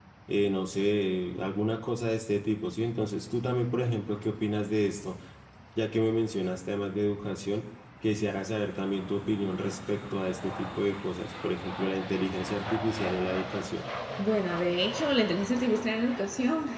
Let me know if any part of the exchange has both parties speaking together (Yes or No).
No